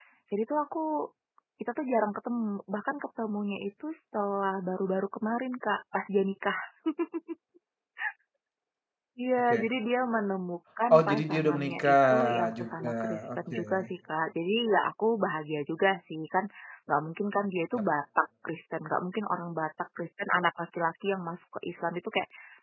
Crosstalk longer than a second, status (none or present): present